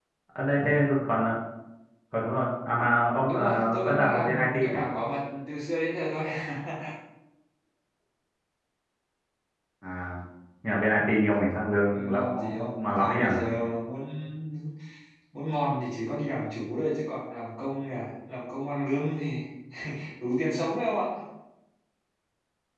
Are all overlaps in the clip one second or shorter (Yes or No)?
No